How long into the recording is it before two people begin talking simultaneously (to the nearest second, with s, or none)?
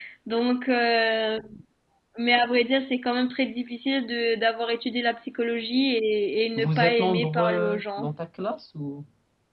7 s